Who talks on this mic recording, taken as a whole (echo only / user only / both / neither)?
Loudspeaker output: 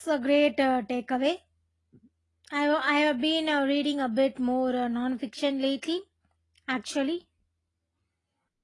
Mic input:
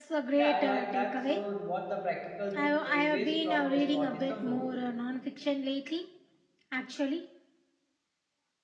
both